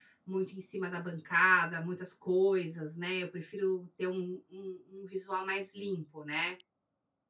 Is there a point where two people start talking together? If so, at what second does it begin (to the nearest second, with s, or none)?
none